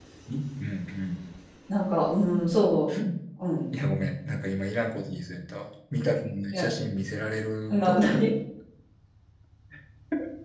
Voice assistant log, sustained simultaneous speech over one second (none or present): none